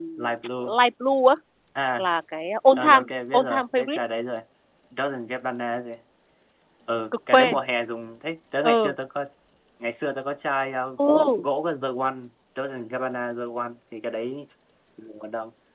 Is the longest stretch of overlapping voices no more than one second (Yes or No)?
No